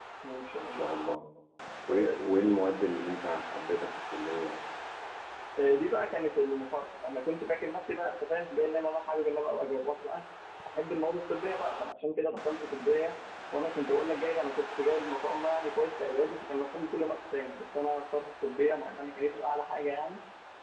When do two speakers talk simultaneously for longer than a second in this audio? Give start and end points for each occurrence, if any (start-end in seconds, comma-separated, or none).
none